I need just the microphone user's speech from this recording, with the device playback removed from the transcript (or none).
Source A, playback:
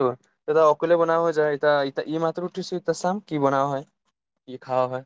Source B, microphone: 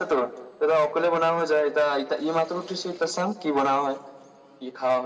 none